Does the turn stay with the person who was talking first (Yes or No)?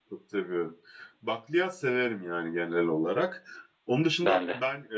Yes